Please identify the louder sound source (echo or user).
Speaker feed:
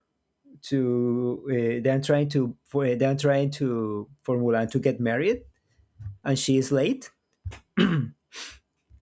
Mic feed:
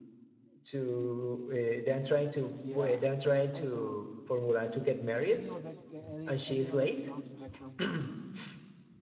echo